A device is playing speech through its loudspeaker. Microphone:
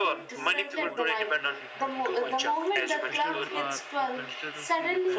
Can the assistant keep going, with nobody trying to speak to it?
No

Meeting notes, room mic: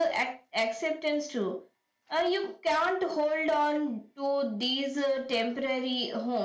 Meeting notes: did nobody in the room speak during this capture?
Yes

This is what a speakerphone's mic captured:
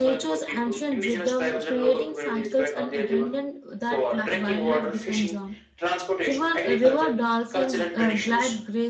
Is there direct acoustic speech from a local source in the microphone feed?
Yes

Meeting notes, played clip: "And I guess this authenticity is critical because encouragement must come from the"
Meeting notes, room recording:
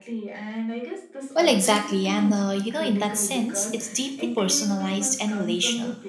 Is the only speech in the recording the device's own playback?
No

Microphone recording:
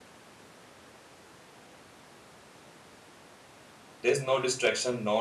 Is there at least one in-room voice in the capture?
Yes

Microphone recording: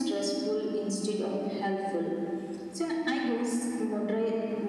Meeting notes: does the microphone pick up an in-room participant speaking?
No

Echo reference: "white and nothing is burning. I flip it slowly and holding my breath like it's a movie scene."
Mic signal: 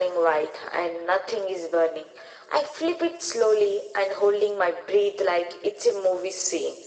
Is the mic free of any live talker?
Yes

